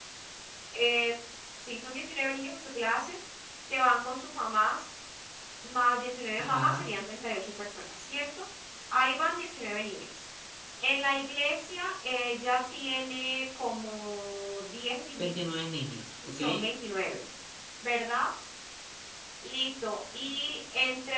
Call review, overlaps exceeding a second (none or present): none